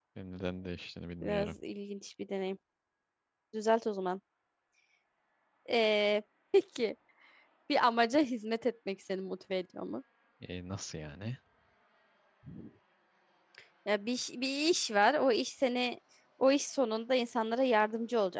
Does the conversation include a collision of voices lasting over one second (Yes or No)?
No